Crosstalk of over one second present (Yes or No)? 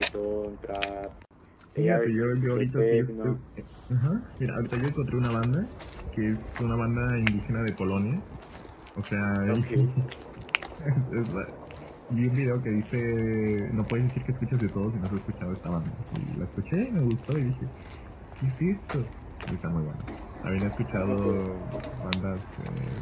Yes